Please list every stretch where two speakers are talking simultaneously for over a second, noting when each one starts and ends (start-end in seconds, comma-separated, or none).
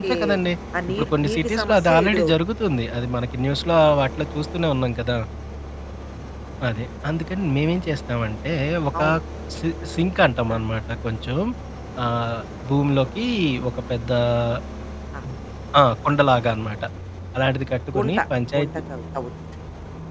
0.9-2.3